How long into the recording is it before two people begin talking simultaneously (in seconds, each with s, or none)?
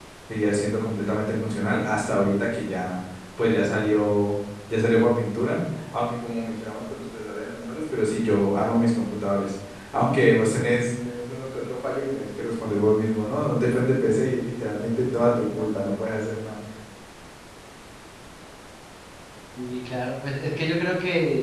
none